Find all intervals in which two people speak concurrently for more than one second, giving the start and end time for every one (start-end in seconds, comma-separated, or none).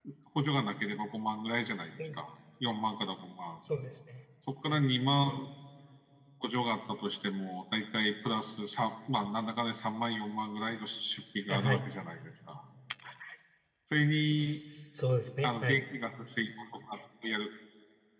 none